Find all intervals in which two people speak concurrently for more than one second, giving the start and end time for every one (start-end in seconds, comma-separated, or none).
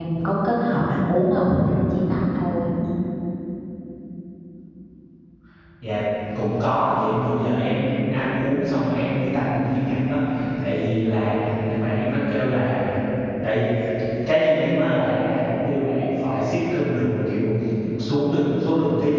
none